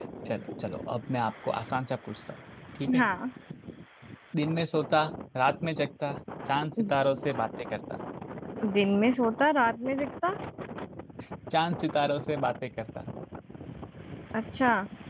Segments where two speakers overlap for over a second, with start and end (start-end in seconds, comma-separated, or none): none